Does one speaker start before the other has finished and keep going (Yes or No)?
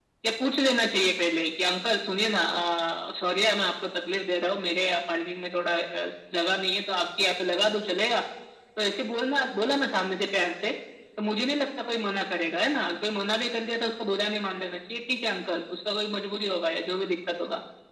No